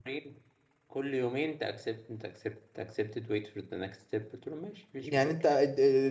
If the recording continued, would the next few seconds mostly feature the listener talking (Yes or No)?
Yes